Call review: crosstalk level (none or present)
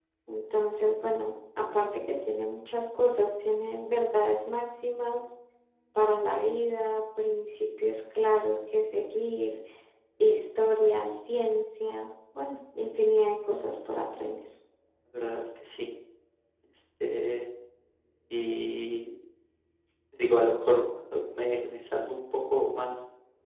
none